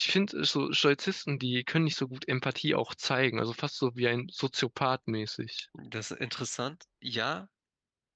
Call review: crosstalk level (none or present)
none